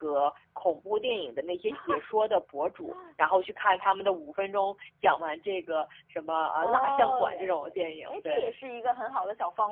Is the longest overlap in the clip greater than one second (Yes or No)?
Yes